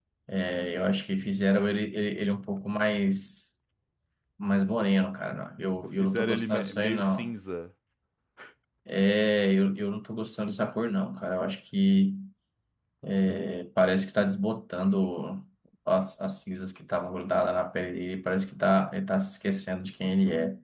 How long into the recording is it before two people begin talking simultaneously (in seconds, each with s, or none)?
6.0 s